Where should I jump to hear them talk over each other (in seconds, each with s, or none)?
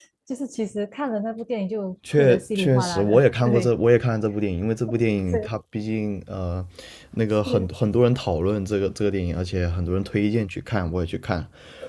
2.1 s